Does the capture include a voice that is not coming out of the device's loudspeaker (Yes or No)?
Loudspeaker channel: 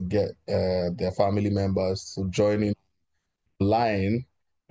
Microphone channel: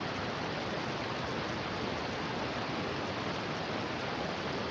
No